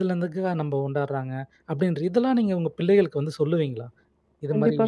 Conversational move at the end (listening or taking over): taking over